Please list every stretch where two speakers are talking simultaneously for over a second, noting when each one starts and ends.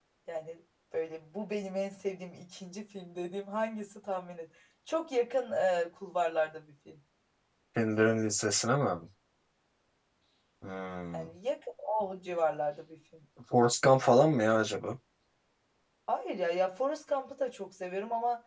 none

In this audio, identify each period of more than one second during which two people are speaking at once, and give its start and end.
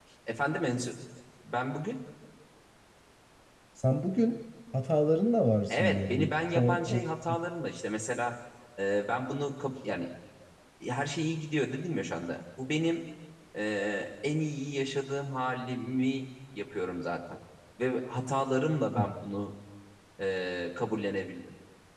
5.7-7.0

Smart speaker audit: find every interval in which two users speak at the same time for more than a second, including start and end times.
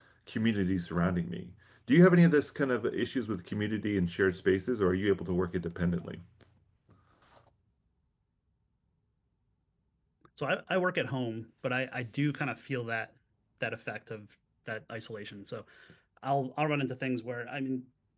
none

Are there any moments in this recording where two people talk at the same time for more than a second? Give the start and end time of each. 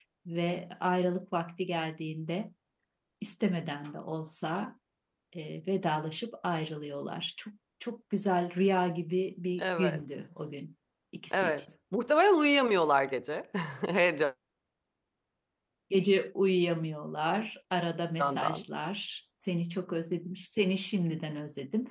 none

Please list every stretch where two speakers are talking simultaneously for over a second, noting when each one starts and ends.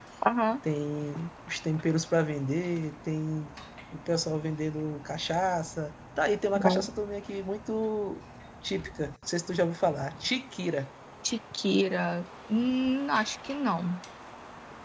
none

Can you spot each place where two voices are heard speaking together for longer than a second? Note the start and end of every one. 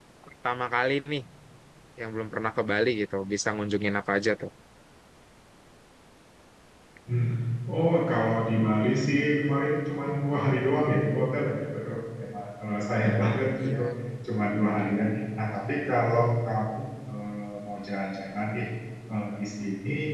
none

